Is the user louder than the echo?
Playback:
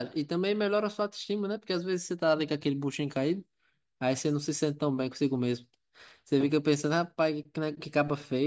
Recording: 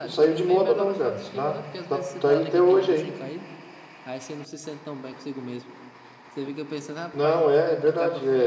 Yes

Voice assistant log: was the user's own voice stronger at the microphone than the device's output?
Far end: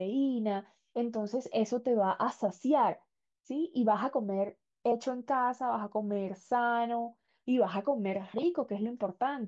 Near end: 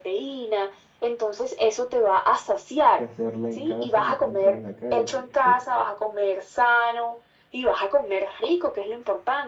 No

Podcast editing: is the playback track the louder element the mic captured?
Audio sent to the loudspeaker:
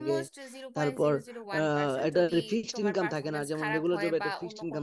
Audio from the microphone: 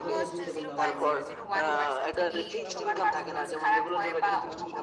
Yes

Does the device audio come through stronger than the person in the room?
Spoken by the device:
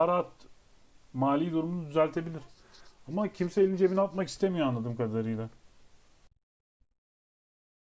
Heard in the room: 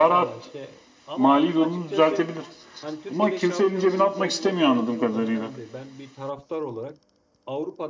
Yes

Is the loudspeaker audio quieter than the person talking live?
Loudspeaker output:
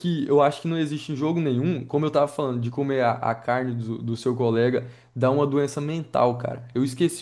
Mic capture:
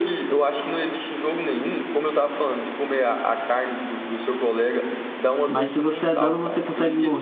Yes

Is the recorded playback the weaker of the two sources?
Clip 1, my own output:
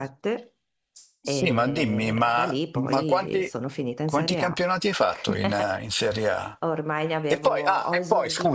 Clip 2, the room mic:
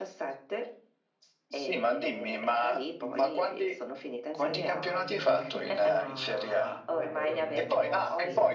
No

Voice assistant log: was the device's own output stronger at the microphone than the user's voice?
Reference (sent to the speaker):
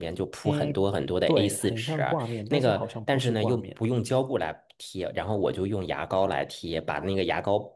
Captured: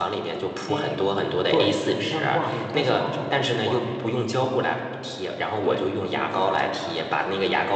Yes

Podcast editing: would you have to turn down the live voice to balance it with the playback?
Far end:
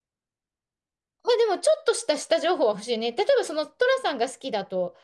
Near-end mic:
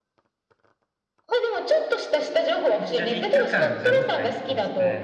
No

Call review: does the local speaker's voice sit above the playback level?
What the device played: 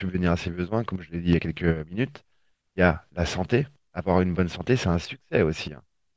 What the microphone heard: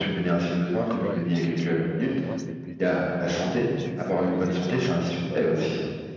No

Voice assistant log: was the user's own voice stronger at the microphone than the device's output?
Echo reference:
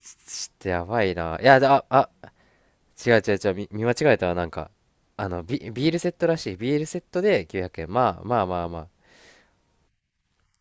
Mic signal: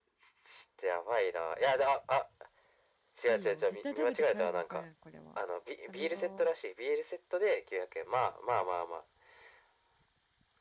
No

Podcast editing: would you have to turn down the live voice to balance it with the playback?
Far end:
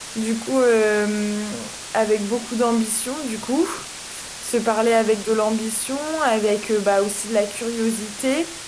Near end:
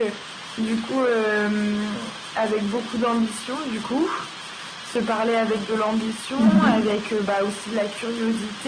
Yes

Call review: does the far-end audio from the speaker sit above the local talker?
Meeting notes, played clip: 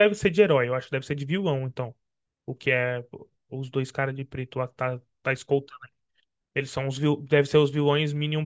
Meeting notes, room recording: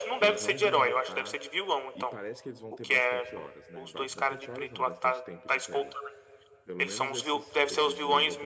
Yes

